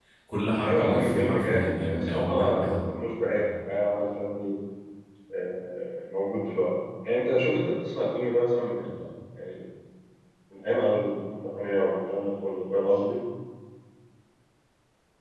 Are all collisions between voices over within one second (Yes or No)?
No